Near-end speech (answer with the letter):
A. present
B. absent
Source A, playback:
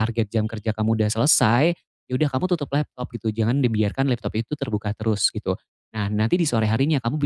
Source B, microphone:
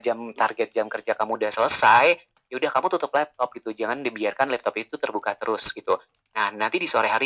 B